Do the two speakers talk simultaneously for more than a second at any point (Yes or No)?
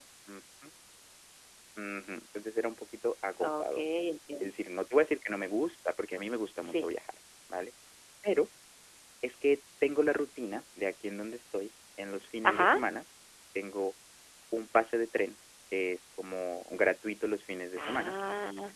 No